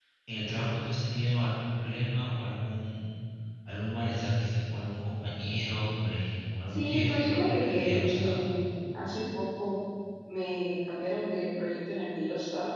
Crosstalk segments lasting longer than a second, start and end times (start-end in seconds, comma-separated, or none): 6.7-8.4